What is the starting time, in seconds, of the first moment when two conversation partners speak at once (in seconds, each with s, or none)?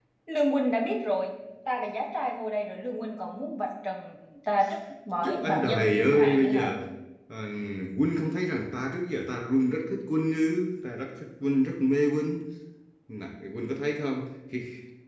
5.2 s